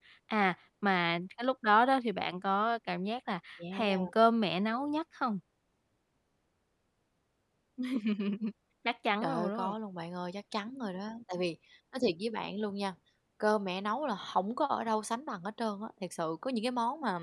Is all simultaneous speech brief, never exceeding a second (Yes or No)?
Yes